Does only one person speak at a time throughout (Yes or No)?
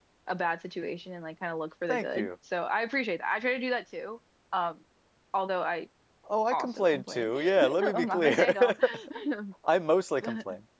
No